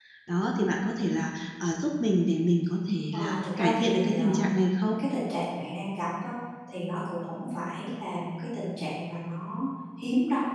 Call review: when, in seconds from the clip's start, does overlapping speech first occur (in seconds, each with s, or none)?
3.1 s